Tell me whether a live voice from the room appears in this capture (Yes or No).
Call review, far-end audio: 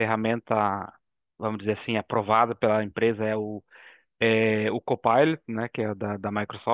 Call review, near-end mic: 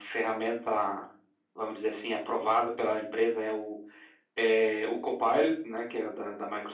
No